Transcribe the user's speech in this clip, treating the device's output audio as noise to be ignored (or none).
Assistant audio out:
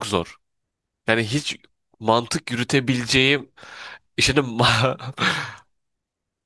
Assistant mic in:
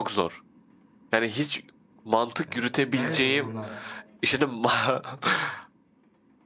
Evet, Kütahya'da bulunan